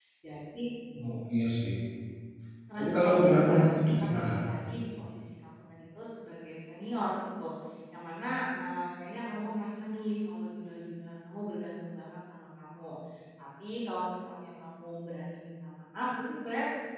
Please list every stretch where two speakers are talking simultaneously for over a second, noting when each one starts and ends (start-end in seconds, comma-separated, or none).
2.8-4.5